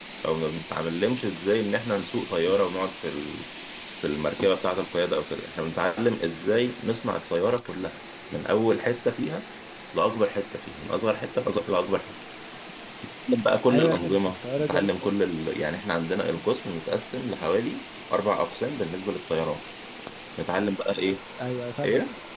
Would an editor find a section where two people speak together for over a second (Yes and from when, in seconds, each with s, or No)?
Yes, from 13.7 s